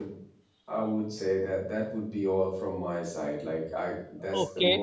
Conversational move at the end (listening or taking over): taking over